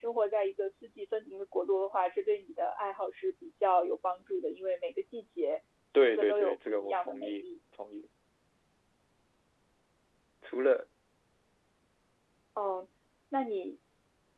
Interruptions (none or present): present